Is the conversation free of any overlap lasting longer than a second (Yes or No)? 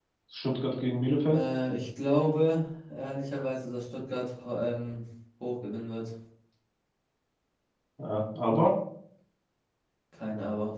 Yes